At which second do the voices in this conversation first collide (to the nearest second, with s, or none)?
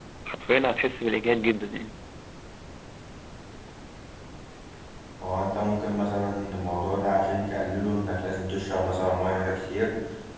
none